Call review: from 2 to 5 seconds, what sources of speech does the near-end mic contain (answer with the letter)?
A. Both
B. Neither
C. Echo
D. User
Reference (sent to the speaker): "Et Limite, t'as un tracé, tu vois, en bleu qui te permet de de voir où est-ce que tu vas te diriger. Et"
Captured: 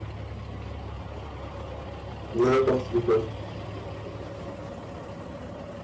D